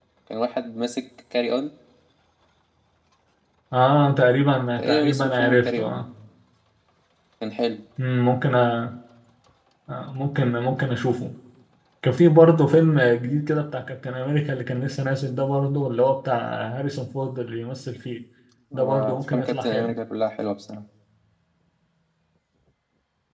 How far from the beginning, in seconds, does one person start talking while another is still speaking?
4.8 s

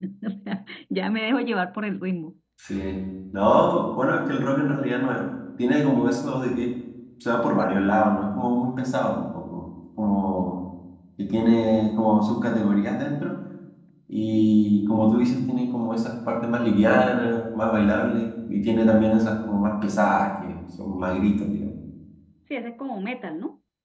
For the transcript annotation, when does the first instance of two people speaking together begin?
none

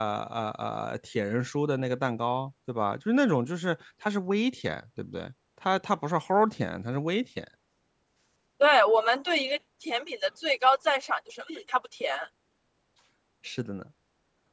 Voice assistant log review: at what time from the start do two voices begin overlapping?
none

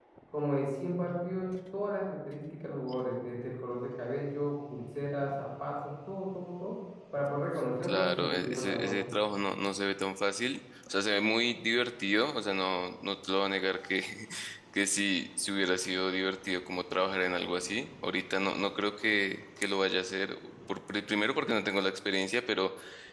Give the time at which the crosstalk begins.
7.8 s

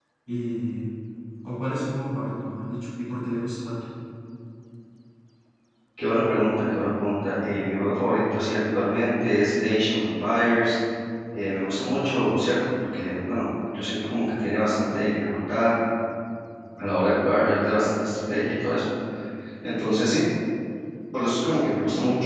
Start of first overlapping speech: none

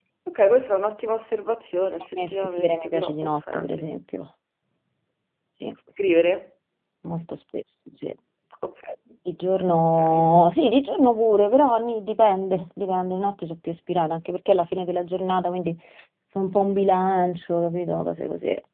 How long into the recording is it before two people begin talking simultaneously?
2.2 s

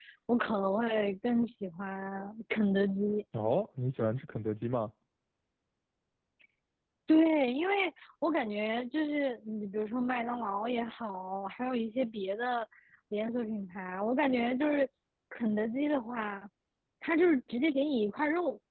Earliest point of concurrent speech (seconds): none

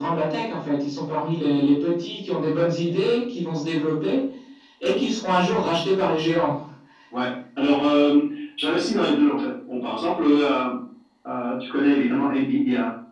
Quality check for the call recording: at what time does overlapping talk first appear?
none

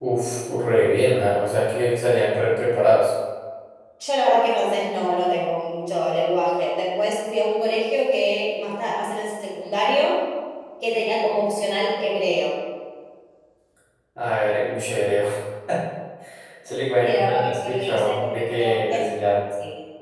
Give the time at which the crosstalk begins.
17.0 s

